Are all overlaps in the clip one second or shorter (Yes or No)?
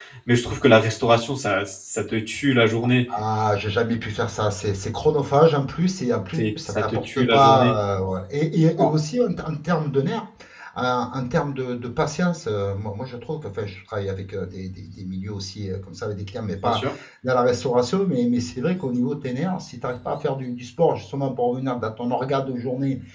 No